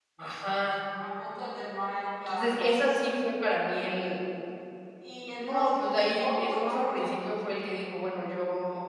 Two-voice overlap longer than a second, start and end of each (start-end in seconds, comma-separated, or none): 6.2-7.4